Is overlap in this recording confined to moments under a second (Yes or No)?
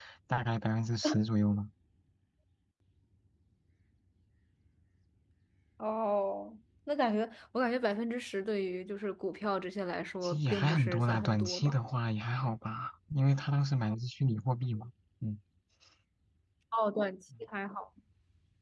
No